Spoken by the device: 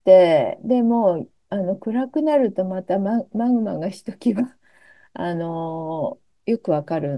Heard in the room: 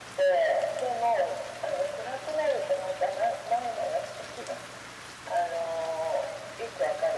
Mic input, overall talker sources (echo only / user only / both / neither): echo only